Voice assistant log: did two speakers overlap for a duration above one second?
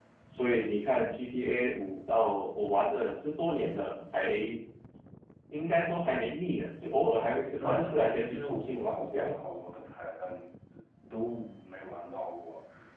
Yes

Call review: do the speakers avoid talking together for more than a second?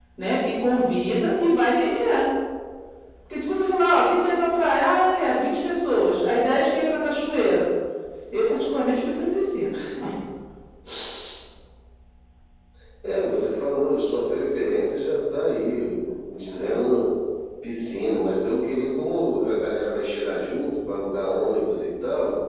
Yes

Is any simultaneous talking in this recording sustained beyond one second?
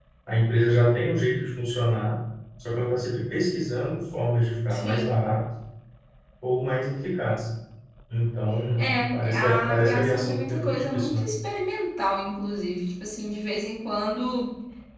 Yes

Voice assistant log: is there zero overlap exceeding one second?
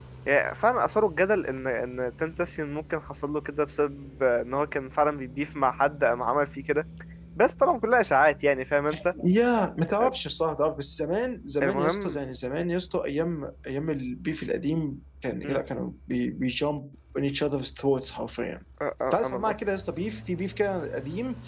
Yes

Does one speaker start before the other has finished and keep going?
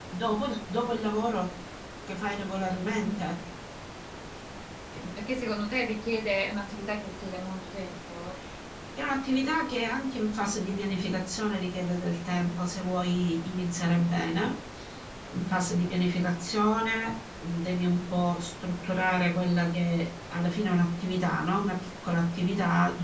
No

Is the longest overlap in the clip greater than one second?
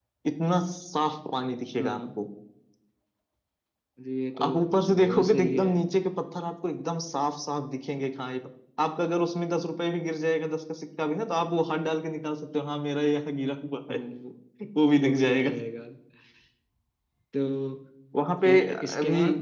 Yes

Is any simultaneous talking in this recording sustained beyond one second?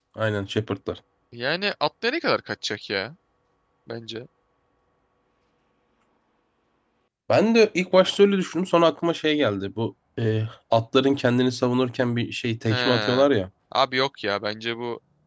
No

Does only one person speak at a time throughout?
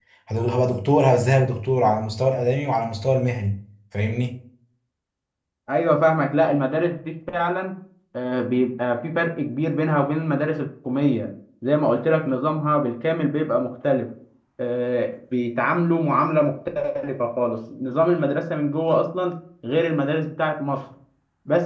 Yes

